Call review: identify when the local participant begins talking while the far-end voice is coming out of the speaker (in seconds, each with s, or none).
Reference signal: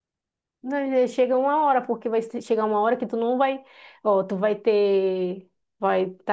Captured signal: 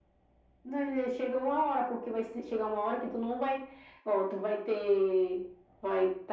none